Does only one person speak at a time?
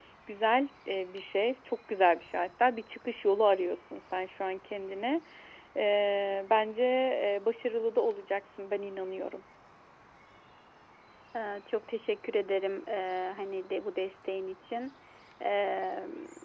Yes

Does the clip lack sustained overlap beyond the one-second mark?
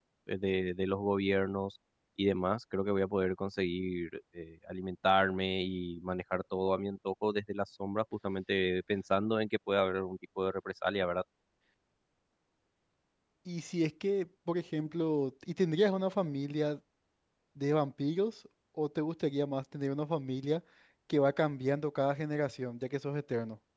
Yes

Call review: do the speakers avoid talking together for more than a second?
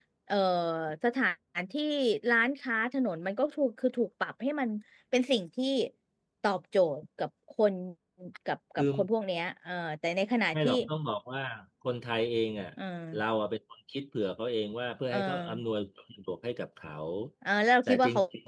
Yes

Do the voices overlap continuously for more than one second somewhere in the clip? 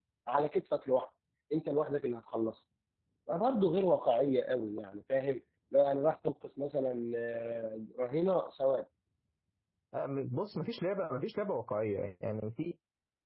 No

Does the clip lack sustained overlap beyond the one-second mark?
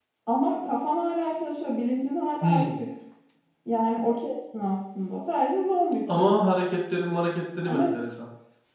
Yes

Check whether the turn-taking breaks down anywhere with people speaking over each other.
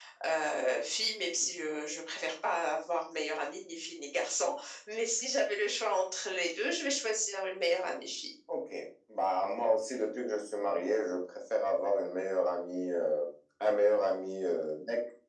No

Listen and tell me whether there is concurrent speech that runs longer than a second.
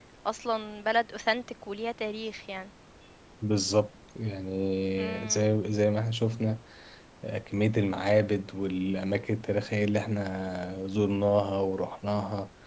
No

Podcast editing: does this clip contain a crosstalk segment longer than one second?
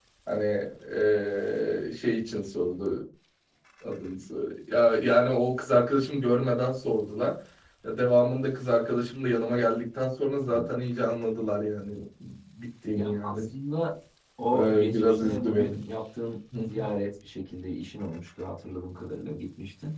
Yes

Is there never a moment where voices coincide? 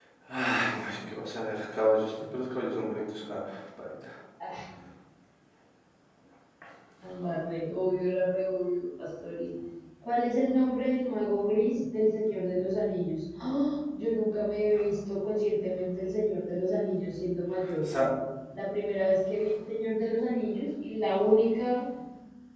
Yes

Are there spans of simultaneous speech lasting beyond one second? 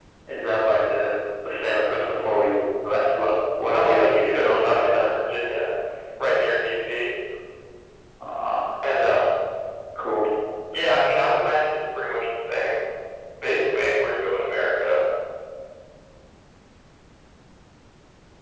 Yes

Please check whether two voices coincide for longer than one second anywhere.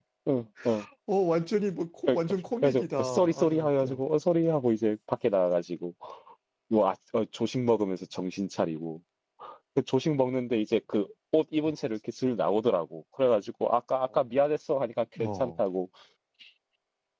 Yes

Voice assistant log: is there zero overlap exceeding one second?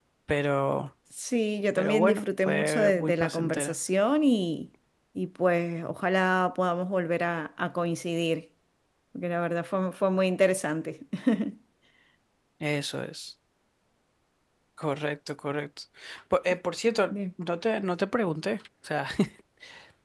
No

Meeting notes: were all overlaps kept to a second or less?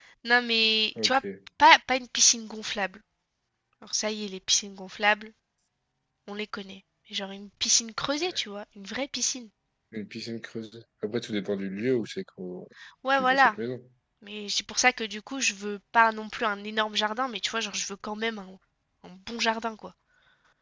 Yes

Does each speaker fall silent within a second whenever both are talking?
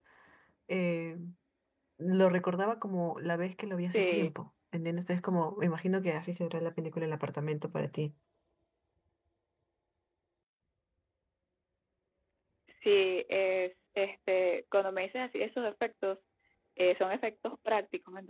Yes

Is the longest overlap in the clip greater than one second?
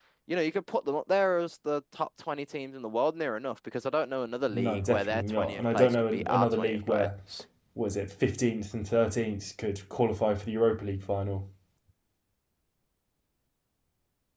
Yes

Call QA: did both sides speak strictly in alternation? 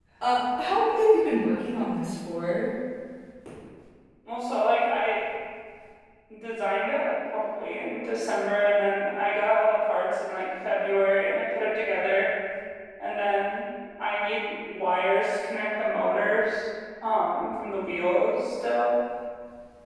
Yes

